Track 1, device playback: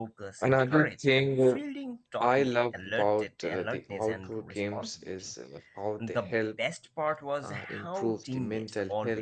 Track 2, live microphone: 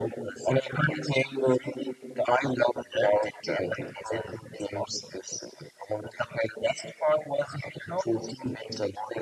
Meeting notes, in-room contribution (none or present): none